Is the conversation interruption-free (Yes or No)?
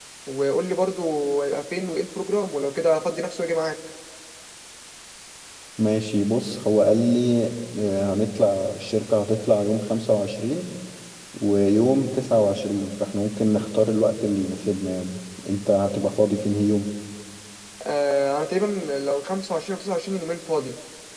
Yes